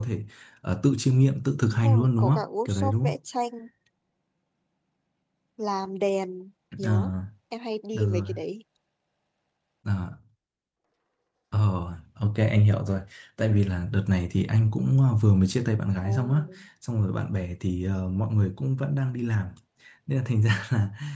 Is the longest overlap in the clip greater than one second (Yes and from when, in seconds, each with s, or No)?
Yes, from 1.6 s